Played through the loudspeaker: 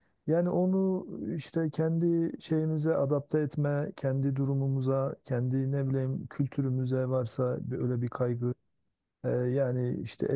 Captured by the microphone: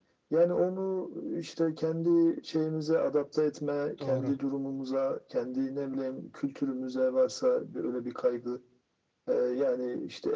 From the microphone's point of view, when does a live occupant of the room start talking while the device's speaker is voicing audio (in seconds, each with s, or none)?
4.0 s